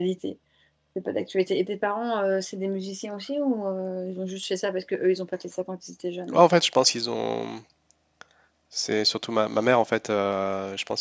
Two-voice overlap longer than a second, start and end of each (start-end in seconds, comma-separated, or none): none